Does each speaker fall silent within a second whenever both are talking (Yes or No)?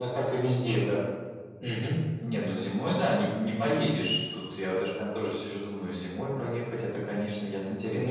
Yes